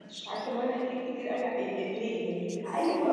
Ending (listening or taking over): taking over